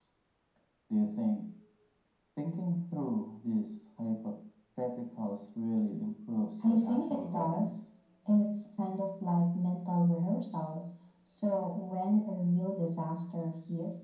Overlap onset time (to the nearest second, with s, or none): 7 s